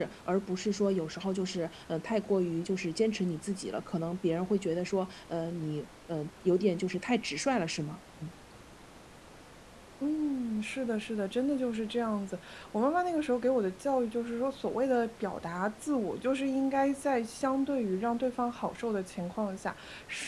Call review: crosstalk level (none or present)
none